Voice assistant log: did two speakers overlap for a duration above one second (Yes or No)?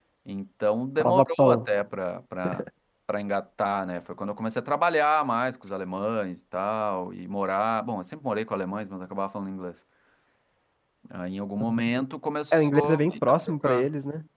Yes